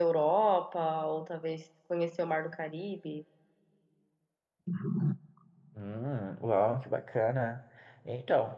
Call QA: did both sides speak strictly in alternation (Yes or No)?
Yes